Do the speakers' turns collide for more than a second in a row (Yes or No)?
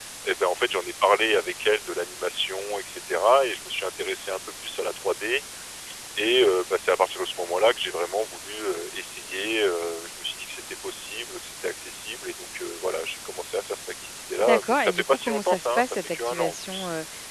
Yes